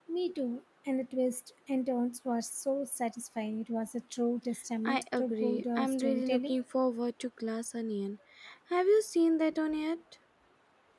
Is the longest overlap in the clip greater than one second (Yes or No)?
Yes